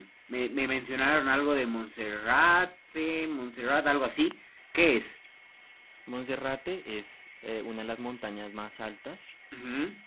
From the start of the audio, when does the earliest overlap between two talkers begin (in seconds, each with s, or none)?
none